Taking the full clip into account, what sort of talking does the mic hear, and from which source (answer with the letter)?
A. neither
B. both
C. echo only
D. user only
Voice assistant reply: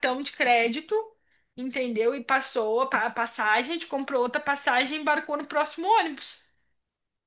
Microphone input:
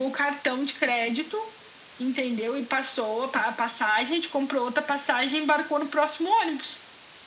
C